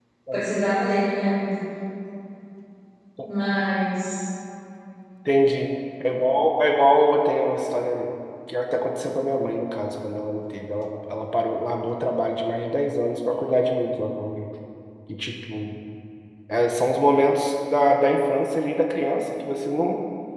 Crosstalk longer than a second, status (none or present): none